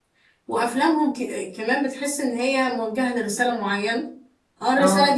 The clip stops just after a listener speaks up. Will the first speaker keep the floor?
Yes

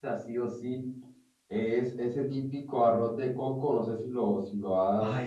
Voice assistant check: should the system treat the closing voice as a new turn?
No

